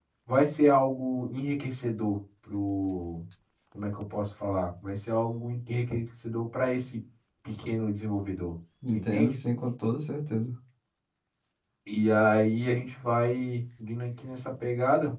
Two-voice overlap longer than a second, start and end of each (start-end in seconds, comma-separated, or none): none